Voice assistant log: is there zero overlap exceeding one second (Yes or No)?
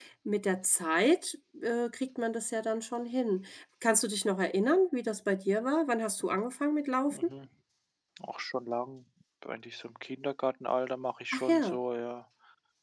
Yes